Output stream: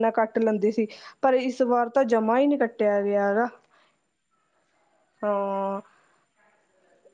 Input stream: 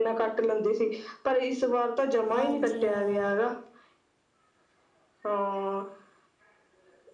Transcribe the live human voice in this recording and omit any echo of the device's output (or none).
ਹਾਂਜੀ ਹਾਂ